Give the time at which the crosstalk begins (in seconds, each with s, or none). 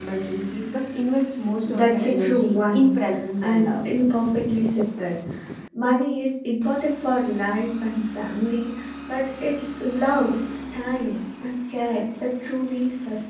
1.6 s